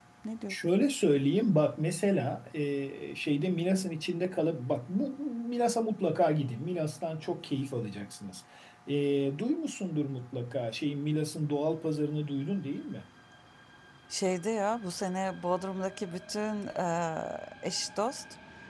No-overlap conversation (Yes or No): Yes